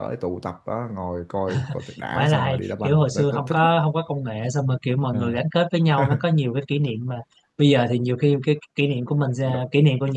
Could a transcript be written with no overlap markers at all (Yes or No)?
No